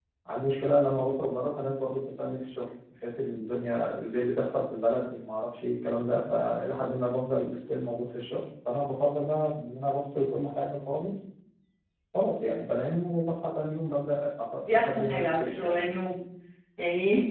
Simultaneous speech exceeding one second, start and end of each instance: 14.7-16.1

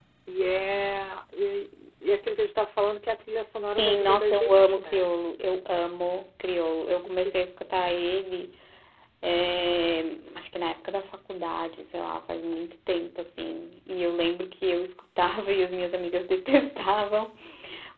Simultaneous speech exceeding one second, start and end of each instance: 3.7-5.1

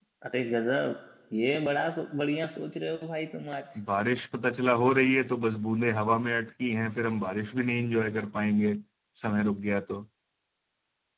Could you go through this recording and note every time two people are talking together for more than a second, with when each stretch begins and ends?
none

